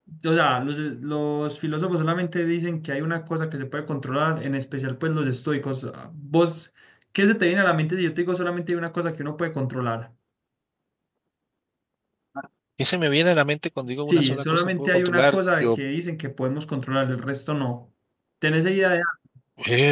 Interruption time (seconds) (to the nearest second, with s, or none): 14 s